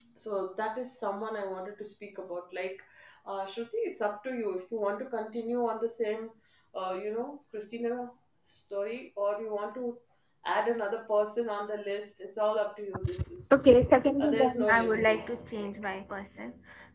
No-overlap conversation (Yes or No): No